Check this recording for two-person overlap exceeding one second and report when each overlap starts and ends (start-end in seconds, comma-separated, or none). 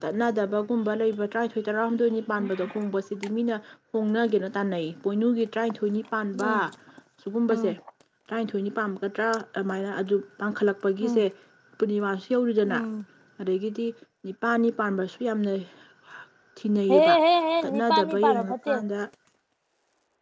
17.6-18.8